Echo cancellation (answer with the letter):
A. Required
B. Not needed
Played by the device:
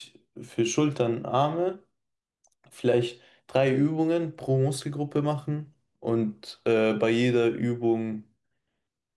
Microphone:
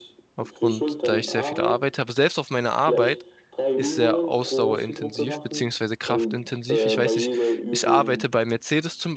A